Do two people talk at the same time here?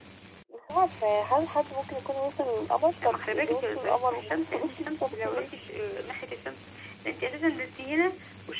Yes, from 3.0 s

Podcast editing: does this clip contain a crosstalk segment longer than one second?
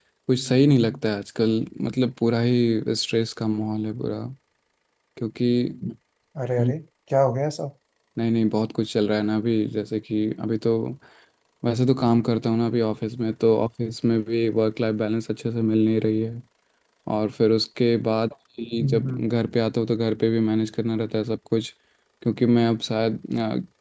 No

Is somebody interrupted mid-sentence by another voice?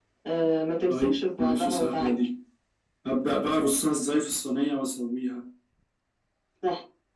Yes, from 0.9 s

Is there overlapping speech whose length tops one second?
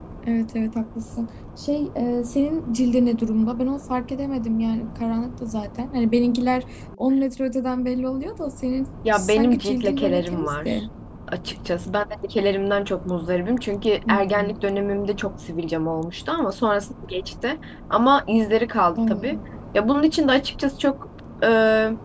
Yes, from 9.1 s

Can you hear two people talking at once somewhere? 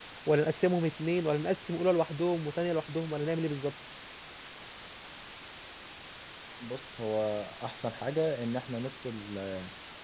No

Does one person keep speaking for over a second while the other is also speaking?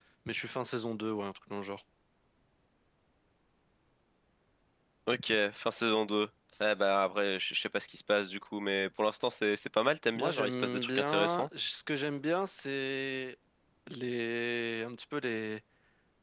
Yes, from 10.2 s

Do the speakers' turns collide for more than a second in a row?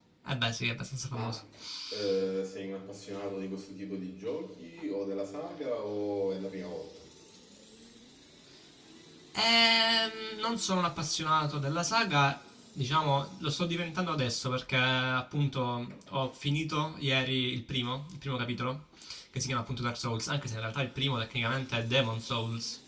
No

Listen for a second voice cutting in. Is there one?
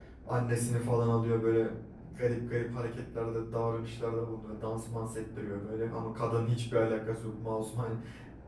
No

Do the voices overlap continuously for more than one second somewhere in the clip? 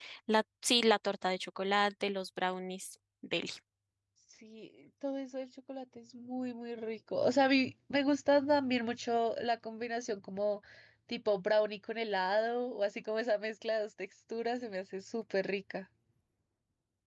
No

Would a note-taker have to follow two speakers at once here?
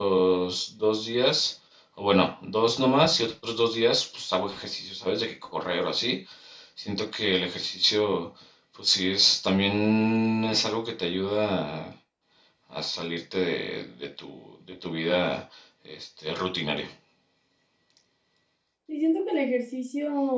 No

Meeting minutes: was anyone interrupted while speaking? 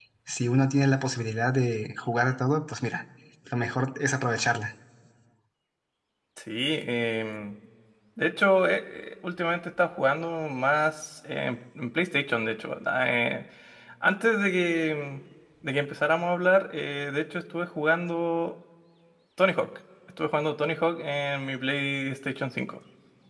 No

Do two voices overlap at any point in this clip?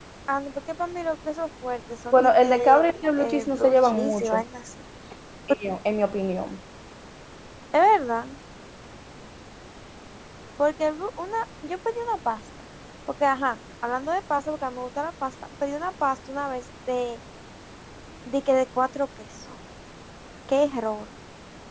Yes, from 2.1 s

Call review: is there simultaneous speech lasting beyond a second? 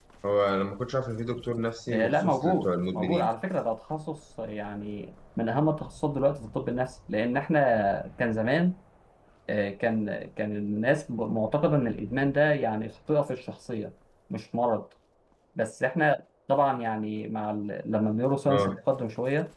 Yes, from 1.9 s

